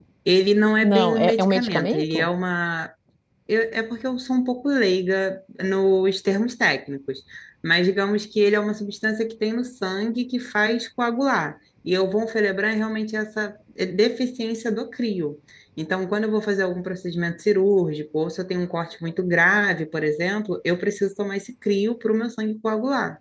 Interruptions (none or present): present